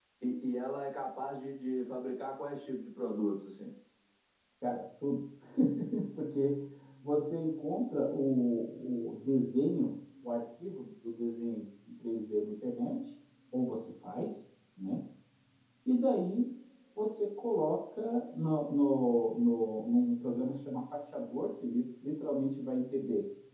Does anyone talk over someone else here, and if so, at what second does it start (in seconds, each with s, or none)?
none